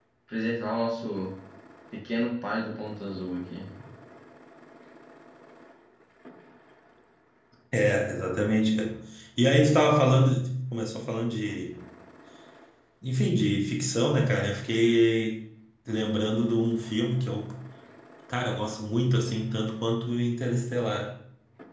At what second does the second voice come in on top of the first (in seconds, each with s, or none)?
none